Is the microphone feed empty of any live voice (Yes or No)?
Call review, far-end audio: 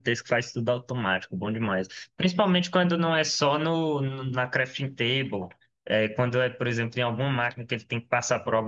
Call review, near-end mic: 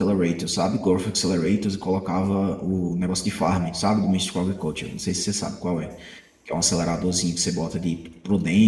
No